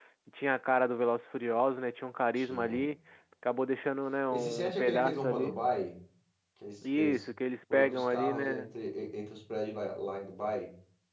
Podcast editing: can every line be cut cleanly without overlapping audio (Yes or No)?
No